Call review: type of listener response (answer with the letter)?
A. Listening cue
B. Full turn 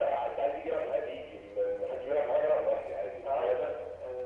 B